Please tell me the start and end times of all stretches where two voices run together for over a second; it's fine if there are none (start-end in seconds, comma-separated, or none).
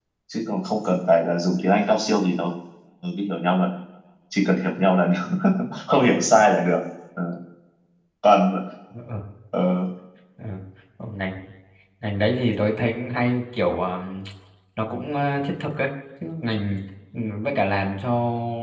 none